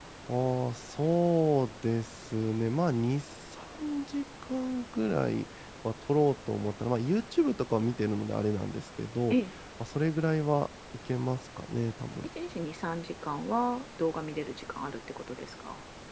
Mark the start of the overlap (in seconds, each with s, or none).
none